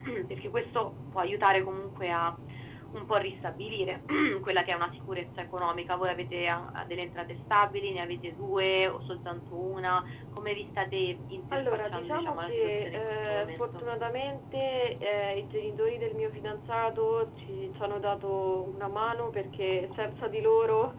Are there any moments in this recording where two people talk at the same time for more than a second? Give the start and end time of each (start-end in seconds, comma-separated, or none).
11.5-13.9